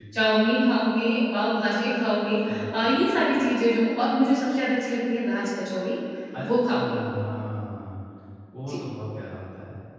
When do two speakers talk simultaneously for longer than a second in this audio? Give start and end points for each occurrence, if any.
none

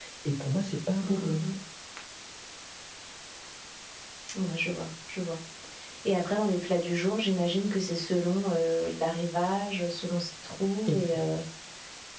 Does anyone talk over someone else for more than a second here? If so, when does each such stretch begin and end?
none

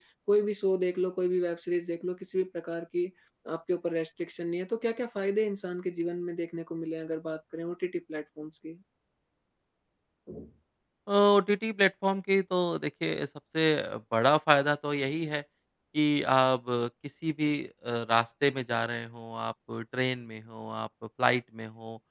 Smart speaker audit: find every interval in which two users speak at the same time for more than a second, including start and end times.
none

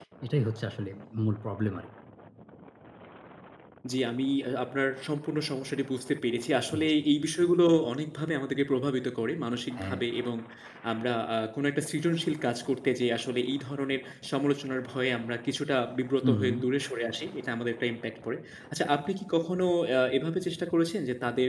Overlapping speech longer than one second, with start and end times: none

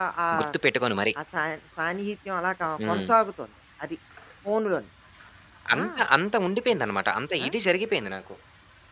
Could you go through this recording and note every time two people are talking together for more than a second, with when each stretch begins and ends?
none

